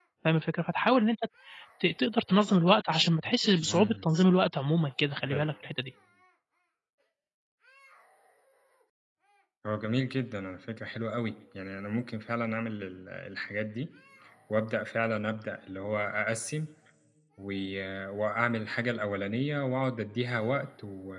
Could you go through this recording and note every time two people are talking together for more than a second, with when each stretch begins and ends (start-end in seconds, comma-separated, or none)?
none